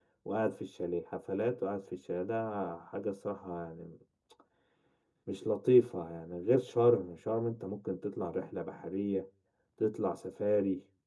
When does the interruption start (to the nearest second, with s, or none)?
none